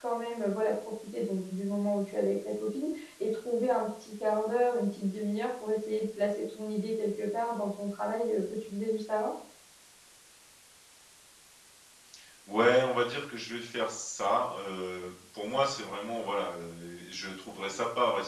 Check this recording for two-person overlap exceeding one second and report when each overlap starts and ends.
none

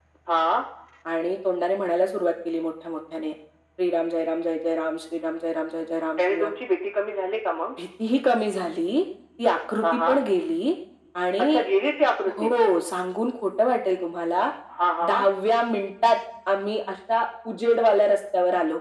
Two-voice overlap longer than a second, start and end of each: none

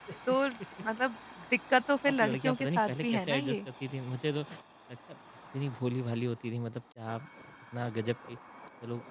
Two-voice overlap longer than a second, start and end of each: 2.1-3.6

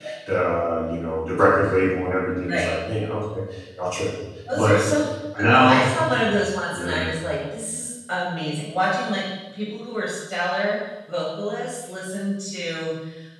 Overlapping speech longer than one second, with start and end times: none

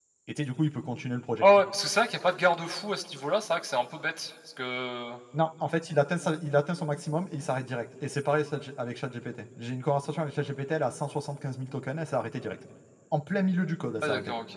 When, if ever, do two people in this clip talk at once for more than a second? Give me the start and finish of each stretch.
none

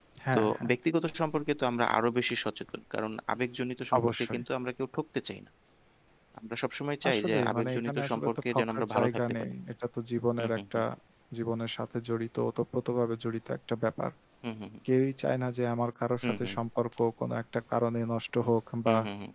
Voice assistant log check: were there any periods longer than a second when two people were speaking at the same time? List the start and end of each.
7.1-9.5

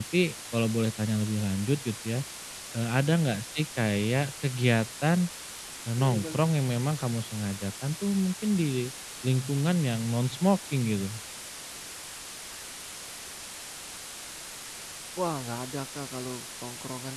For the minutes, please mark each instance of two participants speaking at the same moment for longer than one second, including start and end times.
none

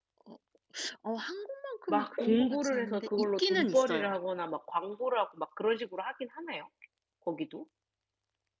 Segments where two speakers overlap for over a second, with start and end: 1.9-4.1

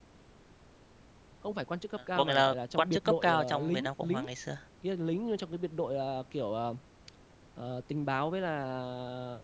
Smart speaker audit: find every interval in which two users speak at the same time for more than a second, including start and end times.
2.1-4.2

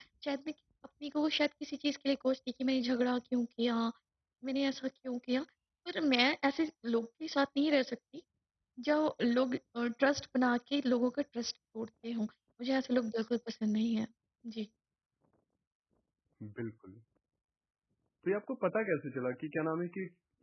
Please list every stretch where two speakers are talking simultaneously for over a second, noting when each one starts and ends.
none

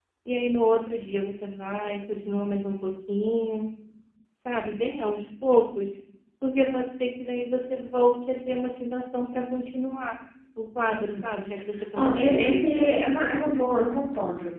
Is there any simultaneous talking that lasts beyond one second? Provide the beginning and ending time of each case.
11.9-13.2

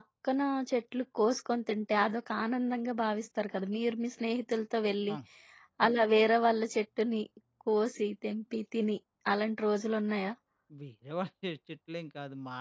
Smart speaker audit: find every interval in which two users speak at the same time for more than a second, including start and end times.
none

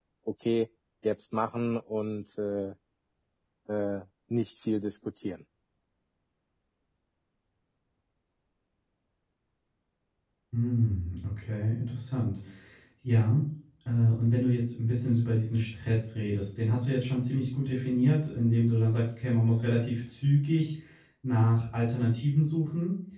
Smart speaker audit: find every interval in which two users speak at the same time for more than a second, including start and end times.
none

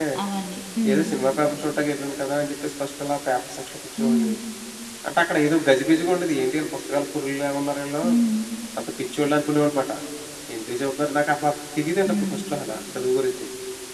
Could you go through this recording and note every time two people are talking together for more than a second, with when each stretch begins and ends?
none

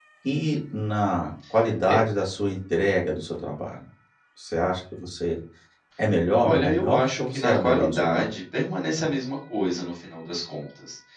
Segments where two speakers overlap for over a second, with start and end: 6.4-8.3

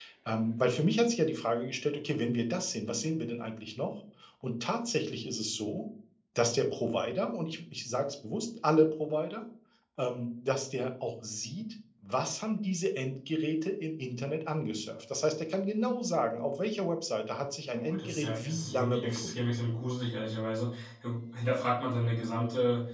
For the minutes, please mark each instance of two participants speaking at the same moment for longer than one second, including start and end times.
17.7-19.3

